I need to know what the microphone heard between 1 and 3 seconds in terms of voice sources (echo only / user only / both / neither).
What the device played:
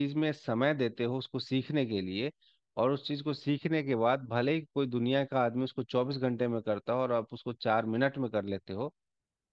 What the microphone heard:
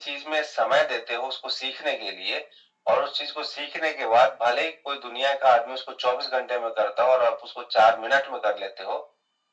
echo only